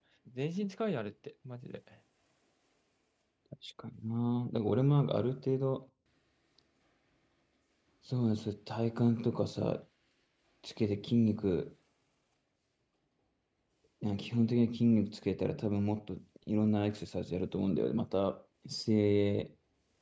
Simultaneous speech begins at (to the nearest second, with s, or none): none